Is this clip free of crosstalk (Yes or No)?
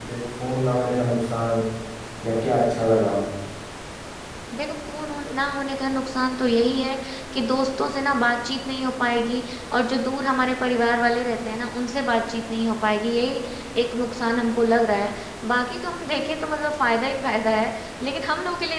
Yes